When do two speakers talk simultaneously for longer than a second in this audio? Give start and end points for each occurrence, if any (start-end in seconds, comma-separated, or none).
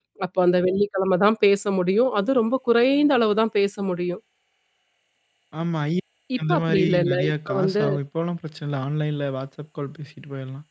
6.4-7.8